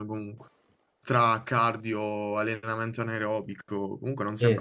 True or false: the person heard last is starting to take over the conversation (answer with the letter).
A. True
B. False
A